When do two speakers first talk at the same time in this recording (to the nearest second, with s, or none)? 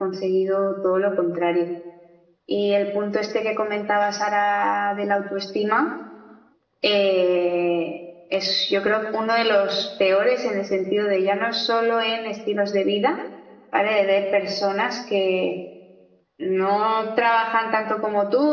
none